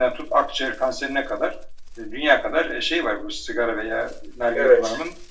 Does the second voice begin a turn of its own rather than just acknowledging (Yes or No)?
No